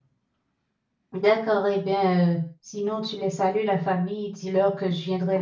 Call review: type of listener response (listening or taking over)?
taking over